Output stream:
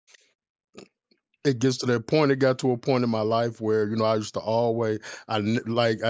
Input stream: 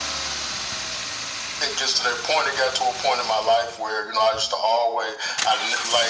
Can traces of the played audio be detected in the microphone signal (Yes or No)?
Yes